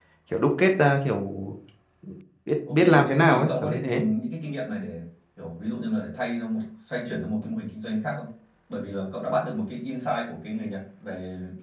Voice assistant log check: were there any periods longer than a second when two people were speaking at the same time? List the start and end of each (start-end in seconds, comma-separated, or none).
2.7-4.0